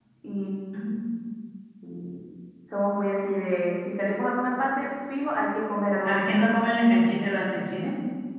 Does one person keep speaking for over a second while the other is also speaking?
No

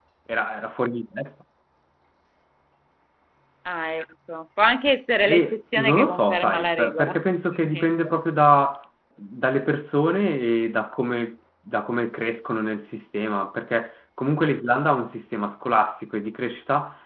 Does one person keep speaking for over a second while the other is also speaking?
Yes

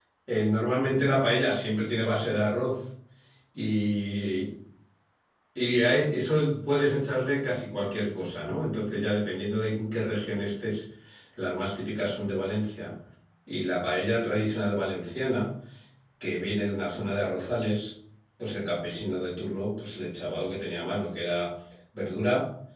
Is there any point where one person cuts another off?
No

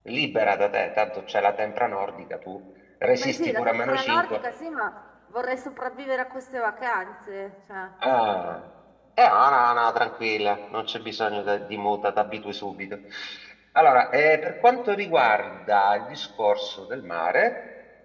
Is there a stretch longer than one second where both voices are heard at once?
Yes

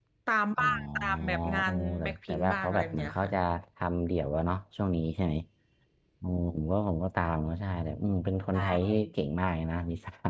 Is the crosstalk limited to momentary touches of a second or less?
No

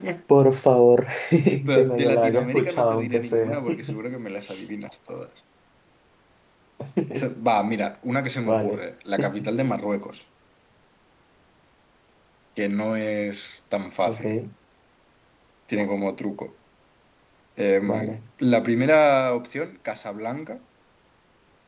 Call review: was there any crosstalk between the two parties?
Yes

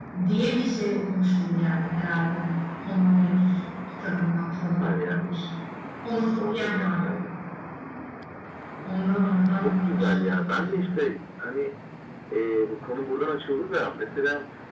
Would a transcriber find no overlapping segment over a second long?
No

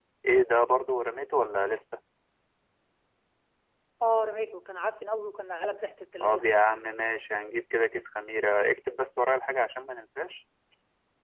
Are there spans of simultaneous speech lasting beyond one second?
No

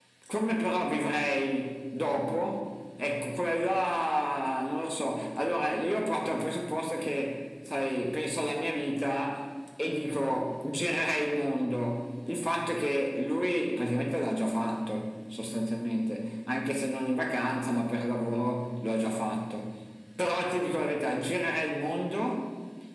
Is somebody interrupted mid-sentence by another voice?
No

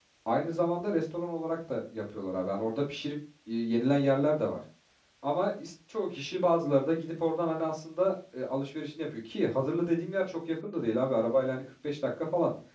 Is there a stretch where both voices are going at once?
No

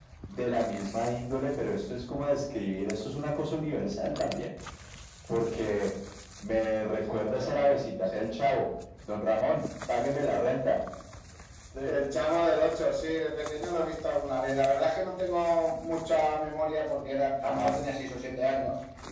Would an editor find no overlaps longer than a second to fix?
No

